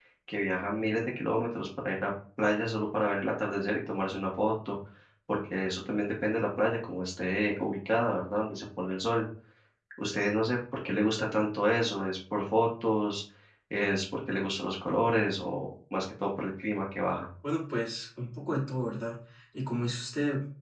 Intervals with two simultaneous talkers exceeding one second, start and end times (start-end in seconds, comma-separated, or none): none